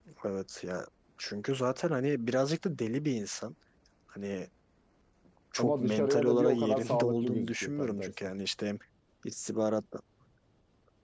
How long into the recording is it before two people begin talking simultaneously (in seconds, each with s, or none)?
5.6 s